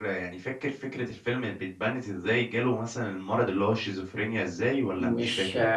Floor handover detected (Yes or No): Yes